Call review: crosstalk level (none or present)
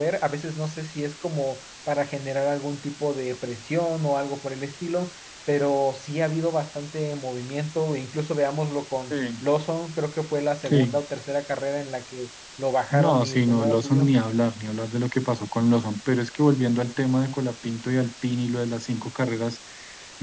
present